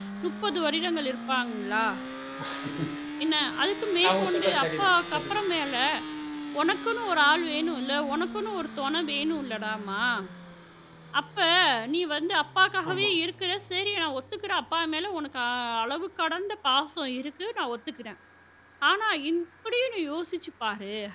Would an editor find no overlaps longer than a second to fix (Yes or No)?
No